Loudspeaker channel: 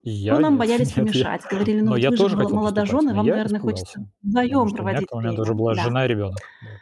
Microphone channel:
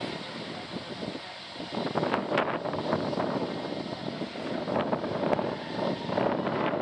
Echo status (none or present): none